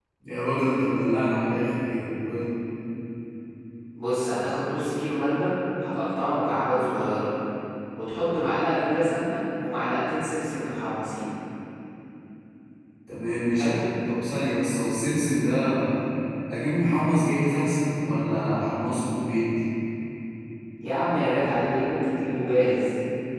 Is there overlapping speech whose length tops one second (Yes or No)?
No